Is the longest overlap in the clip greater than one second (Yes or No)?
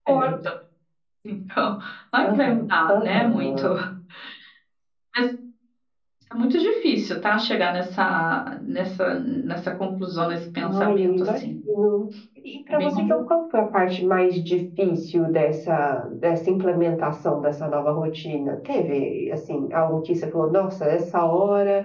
Yes